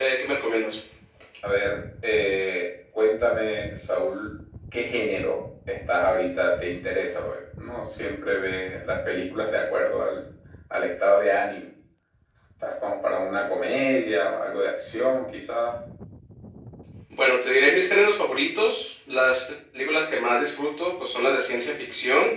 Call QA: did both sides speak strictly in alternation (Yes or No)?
Yes